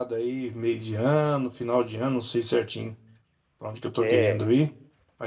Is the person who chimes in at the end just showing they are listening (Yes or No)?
Yes